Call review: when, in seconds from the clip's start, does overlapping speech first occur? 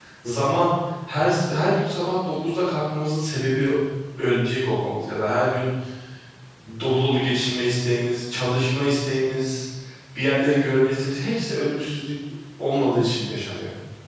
none

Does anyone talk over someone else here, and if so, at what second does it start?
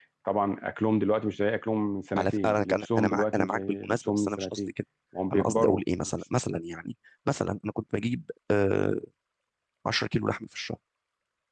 2.2 s

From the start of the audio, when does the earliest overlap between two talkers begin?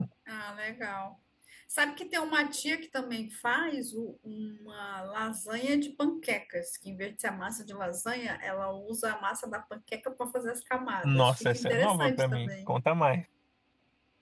11.0 s

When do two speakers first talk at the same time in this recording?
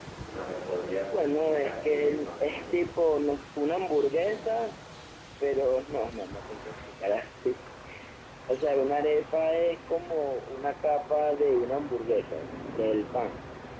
1.1 s

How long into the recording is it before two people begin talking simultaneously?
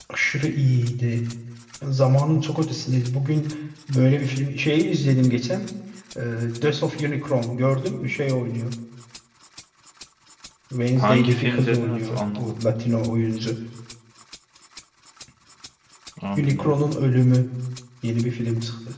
11.0 s

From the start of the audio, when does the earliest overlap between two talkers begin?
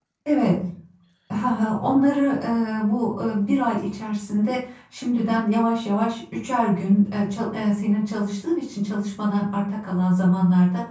none

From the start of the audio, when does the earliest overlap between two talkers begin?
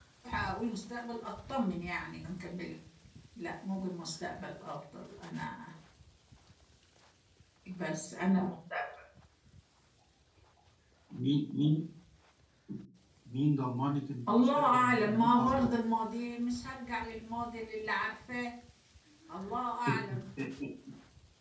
14.3 s

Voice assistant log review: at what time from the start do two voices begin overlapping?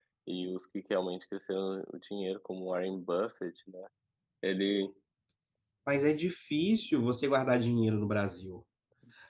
none

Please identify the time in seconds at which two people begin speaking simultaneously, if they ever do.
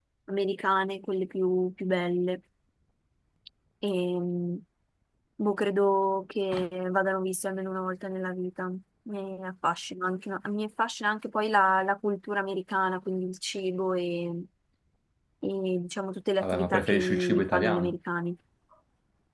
16.4 s

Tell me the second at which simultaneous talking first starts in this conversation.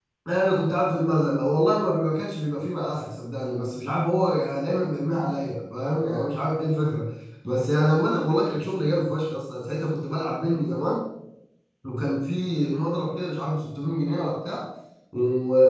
none

